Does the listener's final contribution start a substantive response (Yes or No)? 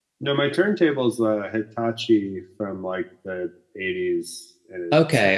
Yes